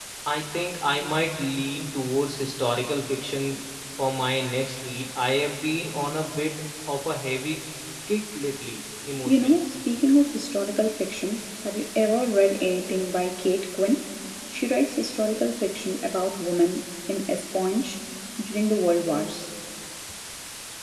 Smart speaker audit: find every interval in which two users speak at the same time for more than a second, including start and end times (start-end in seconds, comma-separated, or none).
none